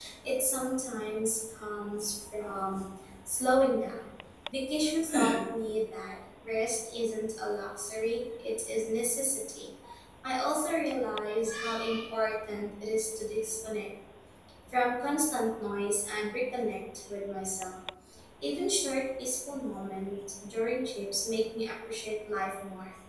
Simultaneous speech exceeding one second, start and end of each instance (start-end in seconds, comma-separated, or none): none